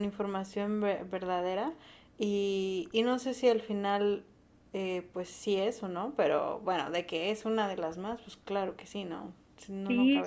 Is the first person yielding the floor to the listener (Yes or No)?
Yes